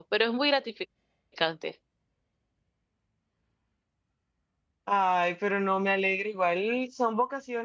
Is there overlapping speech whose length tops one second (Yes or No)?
No